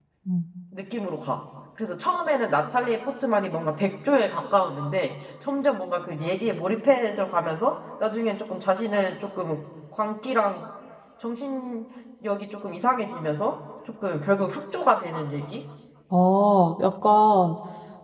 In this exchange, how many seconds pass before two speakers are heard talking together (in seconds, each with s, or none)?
none